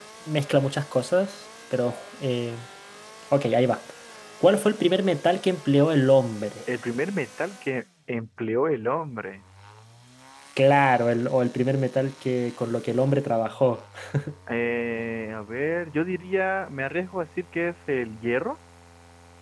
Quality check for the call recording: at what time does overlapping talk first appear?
none

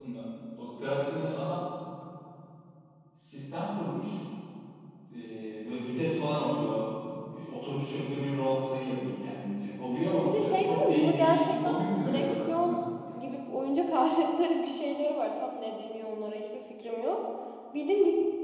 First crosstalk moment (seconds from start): 10.2 s

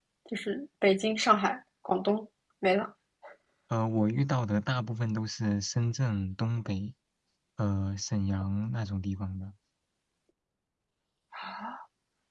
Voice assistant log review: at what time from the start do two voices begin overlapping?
none

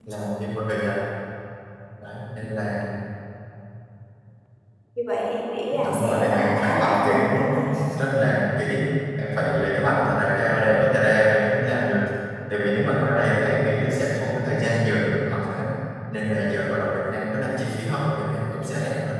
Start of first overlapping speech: 5.7 s

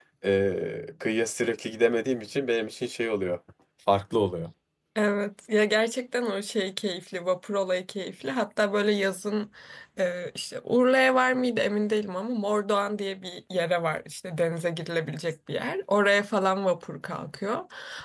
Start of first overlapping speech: none

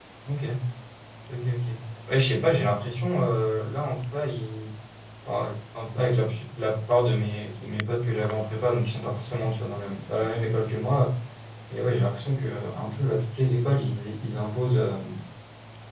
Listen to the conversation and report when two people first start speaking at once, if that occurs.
none

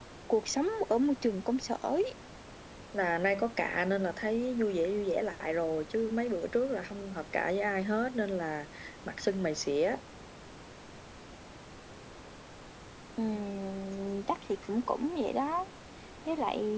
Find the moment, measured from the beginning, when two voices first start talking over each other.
none

